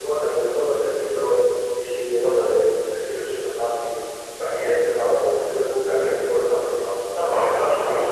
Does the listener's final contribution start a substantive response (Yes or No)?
Yes